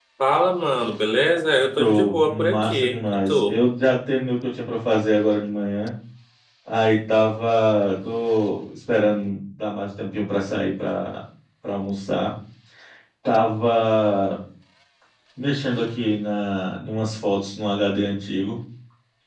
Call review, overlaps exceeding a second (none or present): present